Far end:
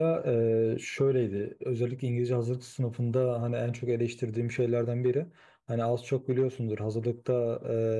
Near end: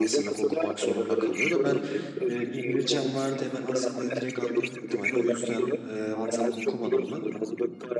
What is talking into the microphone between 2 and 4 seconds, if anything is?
both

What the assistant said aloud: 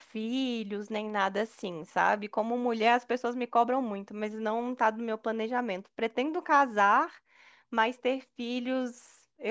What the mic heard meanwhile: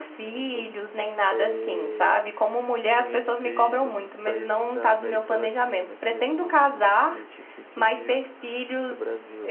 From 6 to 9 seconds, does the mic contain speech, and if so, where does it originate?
both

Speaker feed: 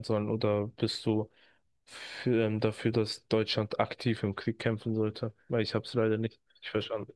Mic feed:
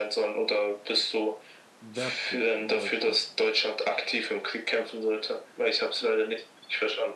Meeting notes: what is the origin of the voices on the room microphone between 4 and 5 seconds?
echo only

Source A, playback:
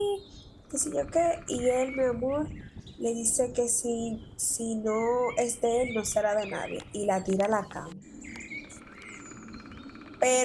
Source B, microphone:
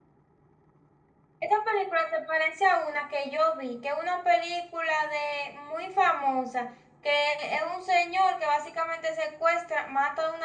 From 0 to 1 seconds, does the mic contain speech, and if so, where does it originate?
neither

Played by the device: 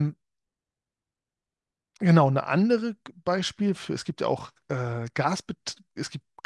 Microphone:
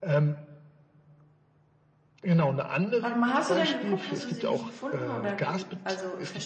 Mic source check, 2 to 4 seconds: both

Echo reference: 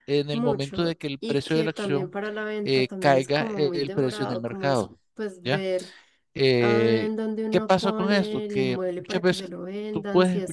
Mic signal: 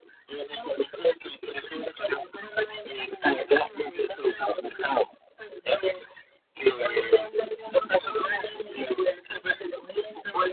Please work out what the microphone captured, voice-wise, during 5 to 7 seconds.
echo only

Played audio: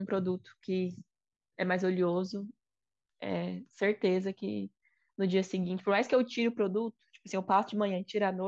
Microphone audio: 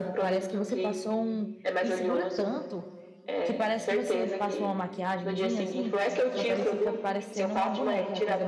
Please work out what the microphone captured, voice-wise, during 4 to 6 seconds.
both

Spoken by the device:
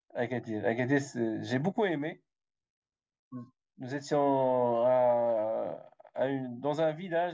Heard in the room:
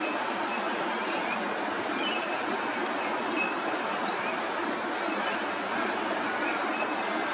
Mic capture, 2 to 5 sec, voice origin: neither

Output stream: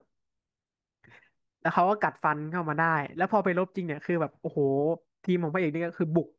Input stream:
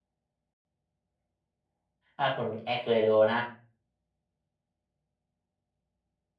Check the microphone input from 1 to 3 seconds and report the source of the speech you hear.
user only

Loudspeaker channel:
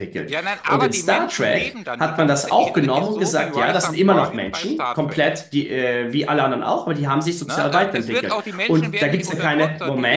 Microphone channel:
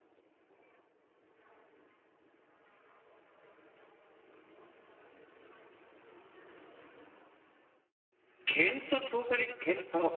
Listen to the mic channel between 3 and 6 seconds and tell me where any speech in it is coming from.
neither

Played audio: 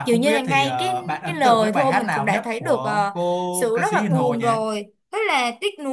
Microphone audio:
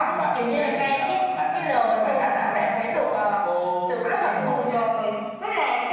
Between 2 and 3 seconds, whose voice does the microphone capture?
echo only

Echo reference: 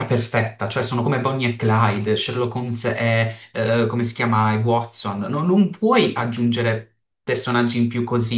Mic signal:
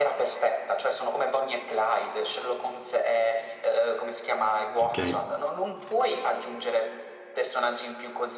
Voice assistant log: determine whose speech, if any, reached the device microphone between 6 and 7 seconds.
echo only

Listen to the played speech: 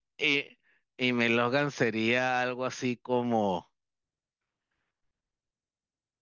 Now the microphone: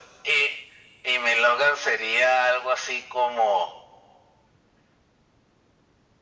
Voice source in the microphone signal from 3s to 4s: echo only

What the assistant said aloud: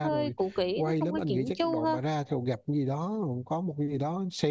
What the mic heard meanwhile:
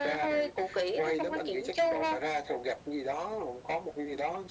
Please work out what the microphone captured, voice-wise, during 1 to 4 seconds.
echo only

